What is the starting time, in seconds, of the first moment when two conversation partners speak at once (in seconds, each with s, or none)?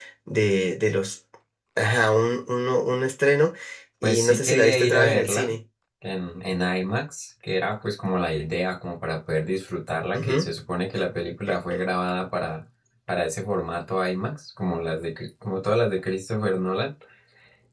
4.0 s